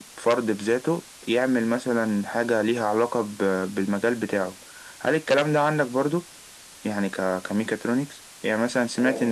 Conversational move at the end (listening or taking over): listening